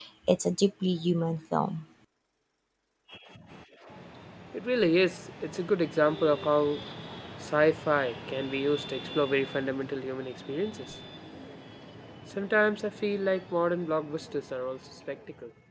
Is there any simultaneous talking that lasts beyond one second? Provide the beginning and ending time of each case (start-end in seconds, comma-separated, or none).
none